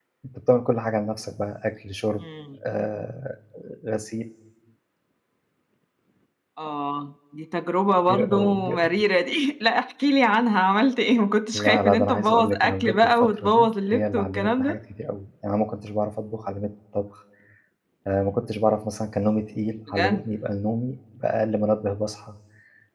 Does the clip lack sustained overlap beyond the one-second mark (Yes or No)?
No